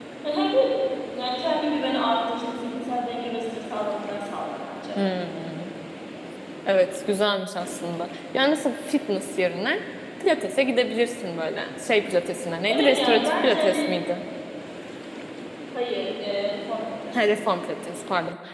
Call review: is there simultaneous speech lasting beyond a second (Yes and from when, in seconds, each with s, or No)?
Yes, from 12.7 s